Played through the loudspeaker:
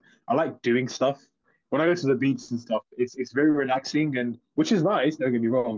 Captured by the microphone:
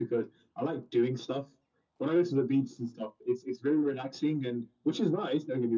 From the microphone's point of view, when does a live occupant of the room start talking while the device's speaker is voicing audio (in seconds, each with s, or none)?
none